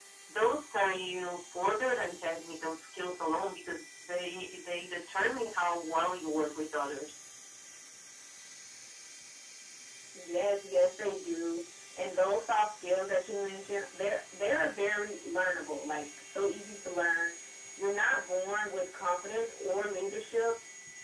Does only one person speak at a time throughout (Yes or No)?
Yes